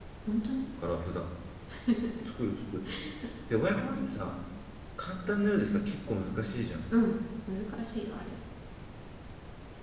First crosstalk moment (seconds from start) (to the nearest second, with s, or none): none